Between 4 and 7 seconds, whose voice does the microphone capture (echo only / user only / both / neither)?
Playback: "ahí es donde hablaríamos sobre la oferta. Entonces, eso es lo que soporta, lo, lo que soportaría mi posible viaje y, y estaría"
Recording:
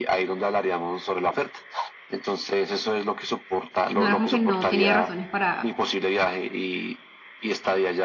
both